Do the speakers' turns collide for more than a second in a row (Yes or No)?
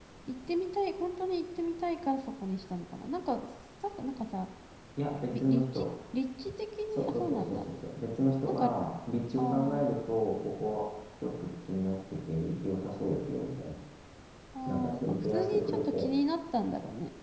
Yes